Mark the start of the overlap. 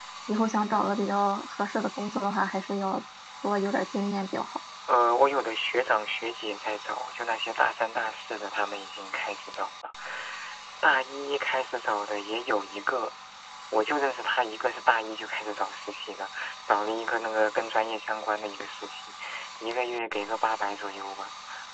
none

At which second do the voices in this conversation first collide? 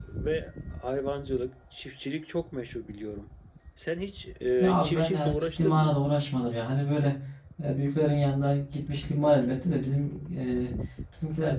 5 s

